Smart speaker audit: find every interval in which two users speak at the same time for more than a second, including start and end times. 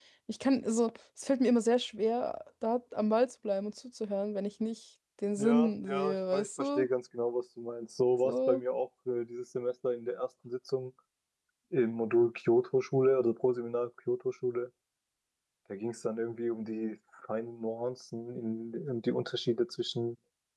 5.4-6.9

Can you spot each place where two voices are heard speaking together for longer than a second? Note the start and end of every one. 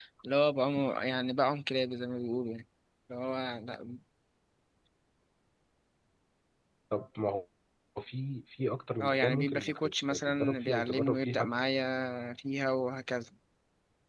9.0-11.5

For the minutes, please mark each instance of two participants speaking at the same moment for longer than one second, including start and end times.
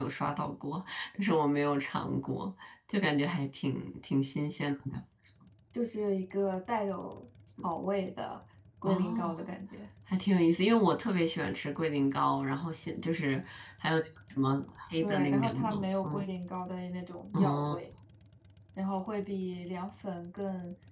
15.0-16.3

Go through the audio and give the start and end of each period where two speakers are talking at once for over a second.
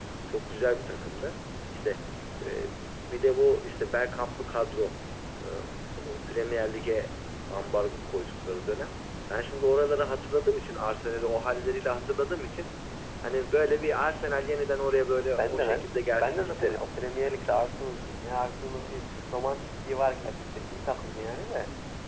15.4-16.8

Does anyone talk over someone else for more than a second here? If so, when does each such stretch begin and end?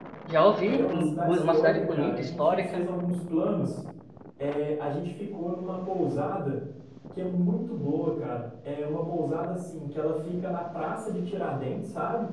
0.7-2.8

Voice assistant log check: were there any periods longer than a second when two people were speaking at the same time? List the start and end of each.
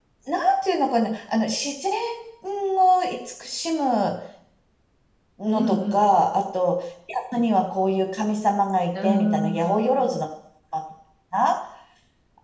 8.9-10.2

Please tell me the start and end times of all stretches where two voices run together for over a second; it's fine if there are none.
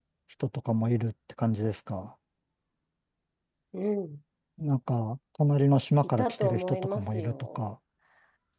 6.2-7.6

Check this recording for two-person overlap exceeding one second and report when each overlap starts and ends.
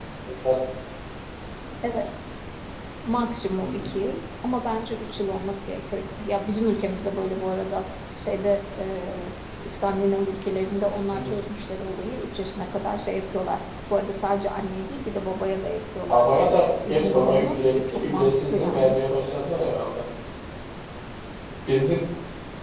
16.1-18.9

